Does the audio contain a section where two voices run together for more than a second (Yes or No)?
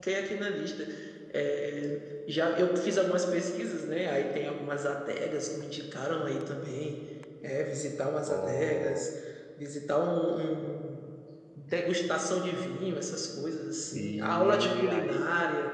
Yes